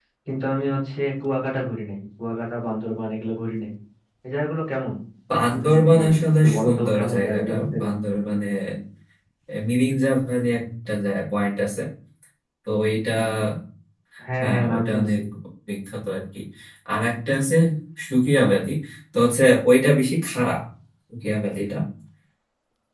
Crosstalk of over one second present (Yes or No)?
Yes